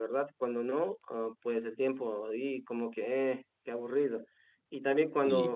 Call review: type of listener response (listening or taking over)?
listening